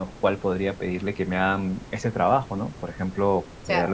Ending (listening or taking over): taking over